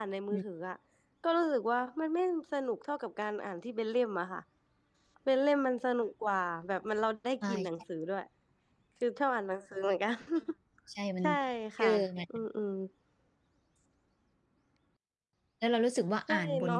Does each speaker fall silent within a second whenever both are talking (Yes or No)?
Yes